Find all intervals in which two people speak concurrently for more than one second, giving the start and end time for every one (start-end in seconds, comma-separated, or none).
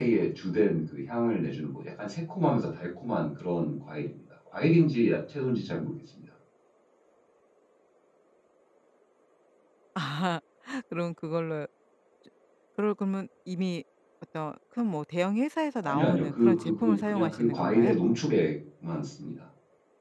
15.8-17.9